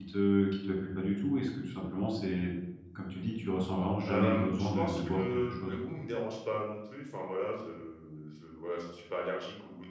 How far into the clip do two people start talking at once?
4 s

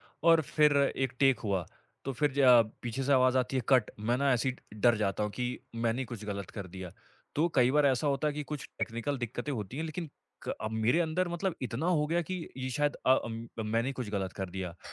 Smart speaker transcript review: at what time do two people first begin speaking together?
none

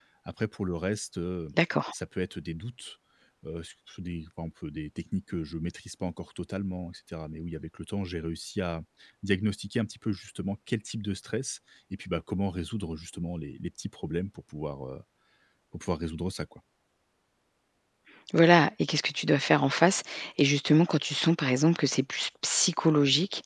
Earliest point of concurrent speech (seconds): none

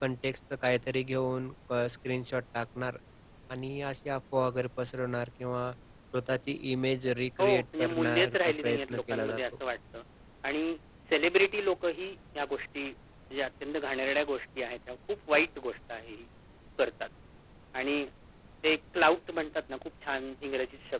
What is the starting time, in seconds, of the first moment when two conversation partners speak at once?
7 s

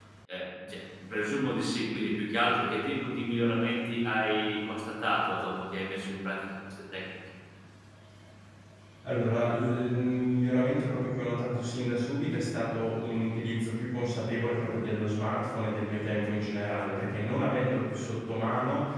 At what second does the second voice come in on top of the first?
none

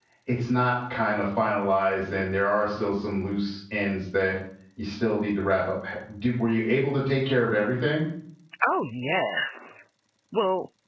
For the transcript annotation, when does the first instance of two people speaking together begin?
none

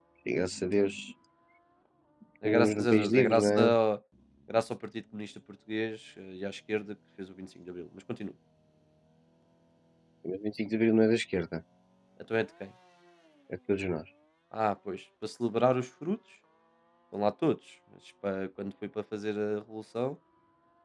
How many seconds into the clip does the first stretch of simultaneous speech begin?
2 s

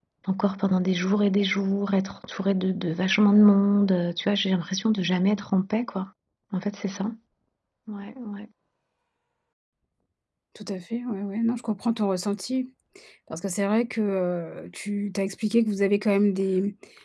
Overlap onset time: none

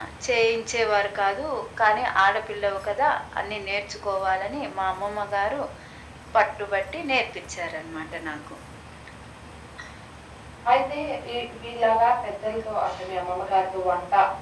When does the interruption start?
none

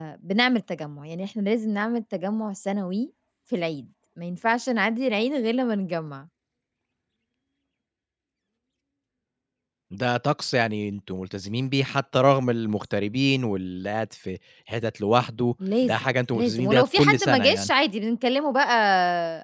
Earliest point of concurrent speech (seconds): 16 s

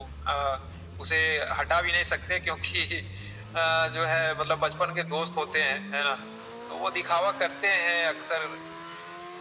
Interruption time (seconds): none

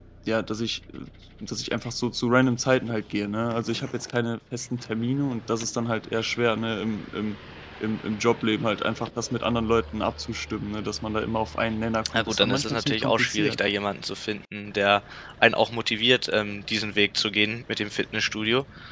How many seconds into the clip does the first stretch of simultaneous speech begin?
12 s

